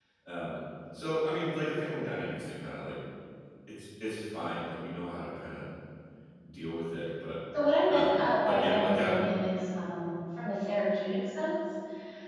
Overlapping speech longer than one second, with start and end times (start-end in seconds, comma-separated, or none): 7.9-9.1